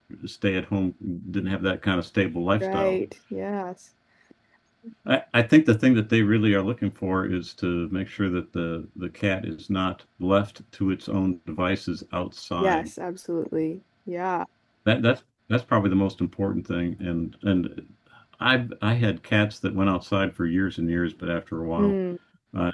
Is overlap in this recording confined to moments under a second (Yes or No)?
Yes